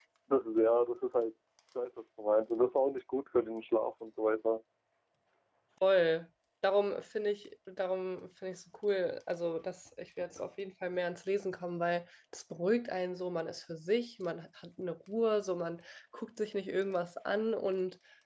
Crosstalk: none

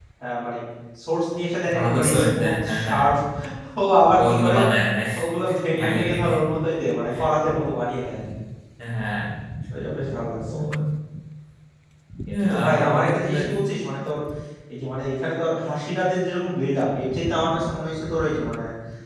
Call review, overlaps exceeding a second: present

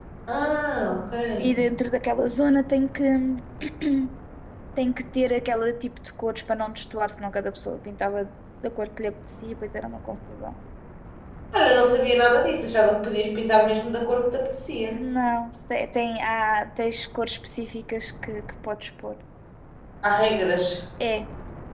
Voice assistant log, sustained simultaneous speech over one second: none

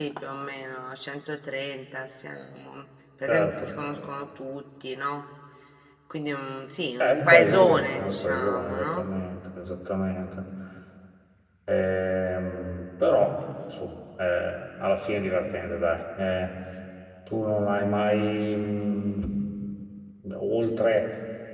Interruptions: present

